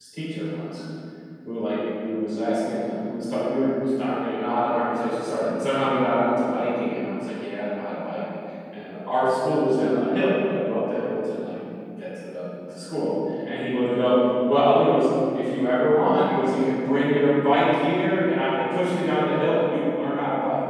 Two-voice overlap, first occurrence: none

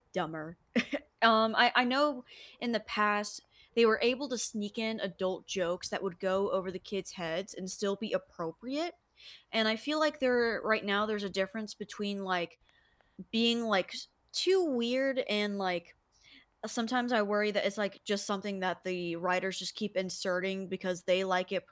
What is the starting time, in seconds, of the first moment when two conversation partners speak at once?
none

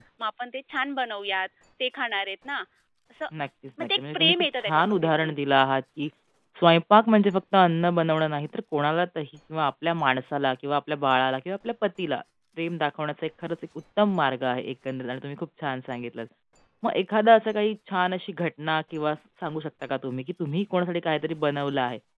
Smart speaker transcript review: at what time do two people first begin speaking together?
4 s

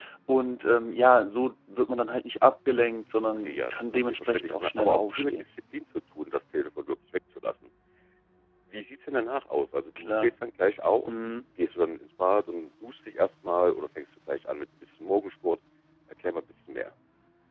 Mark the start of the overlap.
3 s

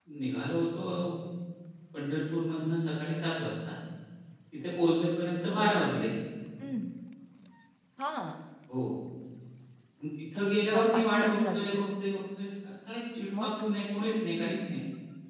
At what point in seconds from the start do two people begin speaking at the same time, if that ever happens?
10 s

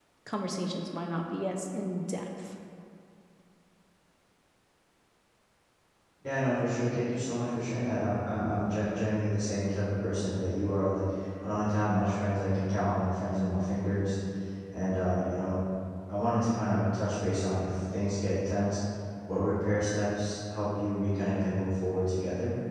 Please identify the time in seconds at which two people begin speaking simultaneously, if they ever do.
none

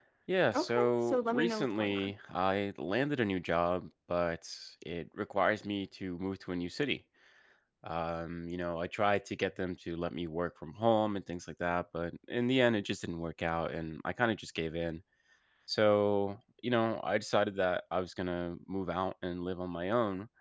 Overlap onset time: 1 s

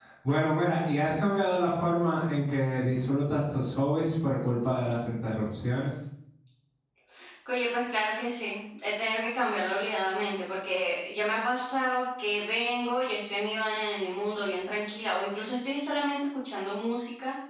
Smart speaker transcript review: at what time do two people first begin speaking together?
none

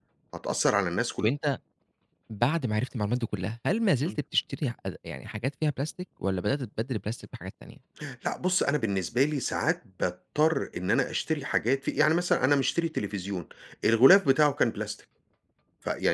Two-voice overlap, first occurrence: none

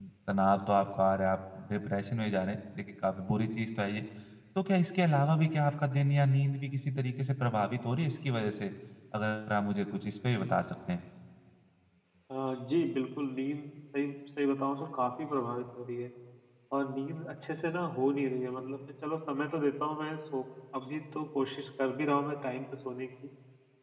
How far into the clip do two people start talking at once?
none

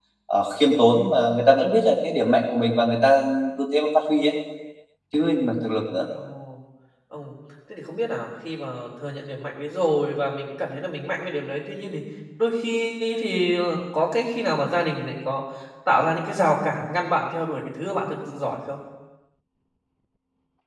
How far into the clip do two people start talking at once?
none

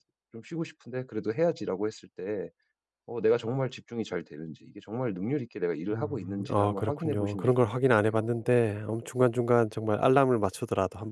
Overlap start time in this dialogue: 6 s

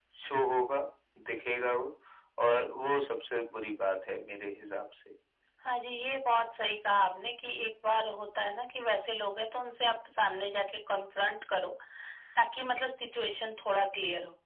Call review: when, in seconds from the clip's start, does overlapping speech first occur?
none

